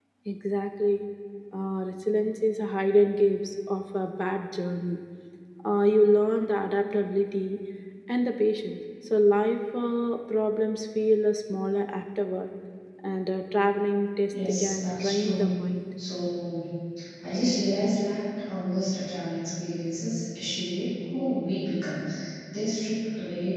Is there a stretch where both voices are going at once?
Yes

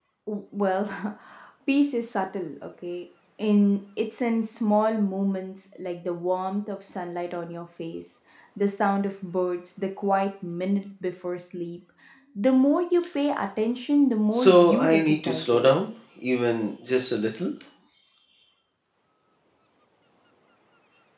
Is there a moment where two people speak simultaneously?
Yes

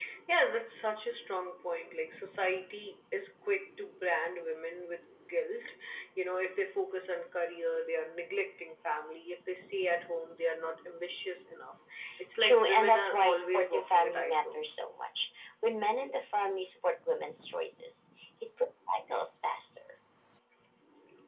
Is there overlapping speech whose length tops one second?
Yes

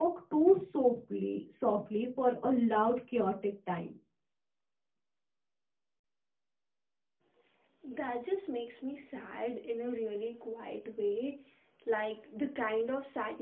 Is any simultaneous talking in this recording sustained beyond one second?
No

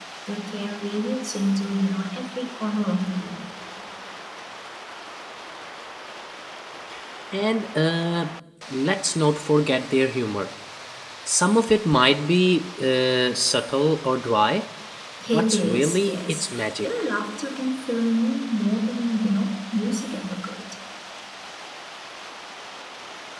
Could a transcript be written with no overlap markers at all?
No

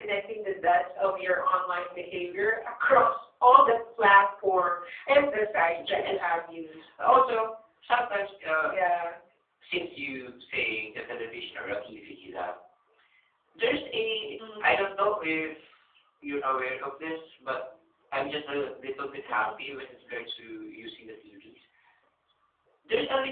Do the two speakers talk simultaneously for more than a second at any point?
No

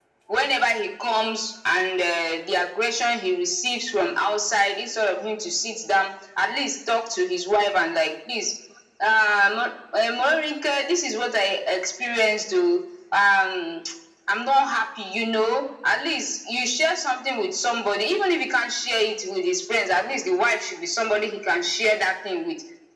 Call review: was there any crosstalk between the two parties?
No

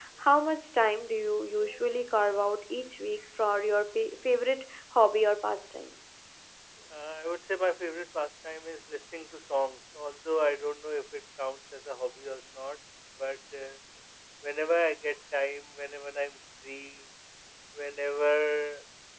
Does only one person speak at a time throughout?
Yes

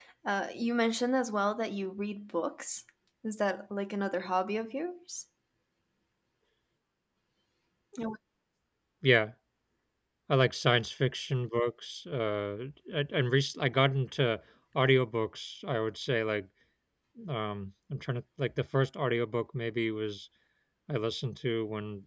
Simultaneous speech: No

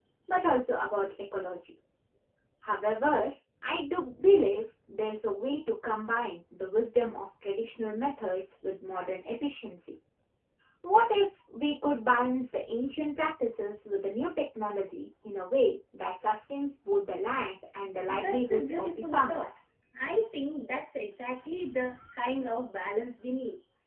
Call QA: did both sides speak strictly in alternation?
No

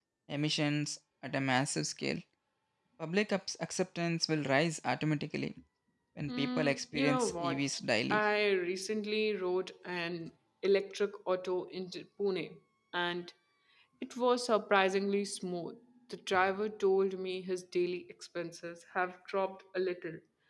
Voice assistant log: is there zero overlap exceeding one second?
No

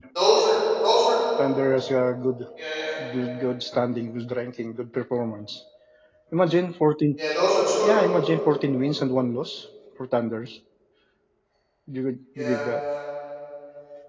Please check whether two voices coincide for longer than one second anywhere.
No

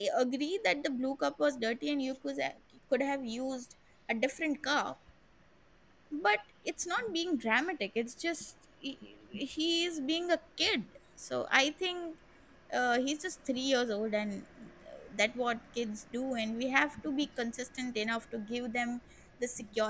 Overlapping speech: No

